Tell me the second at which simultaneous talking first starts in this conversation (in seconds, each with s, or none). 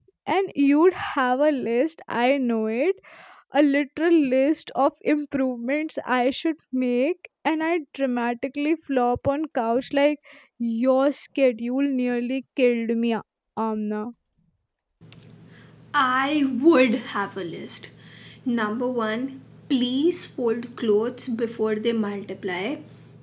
none